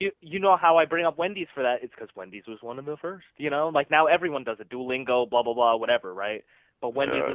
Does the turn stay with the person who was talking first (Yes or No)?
No